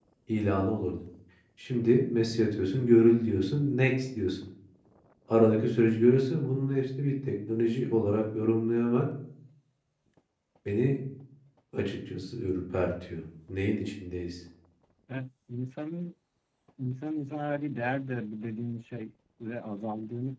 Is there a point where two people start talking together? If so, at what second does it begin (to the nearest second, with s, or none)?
none